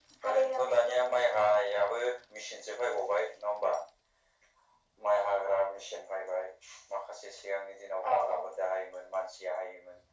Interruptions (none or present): present